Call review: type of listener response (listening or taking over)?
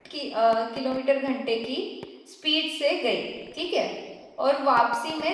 listening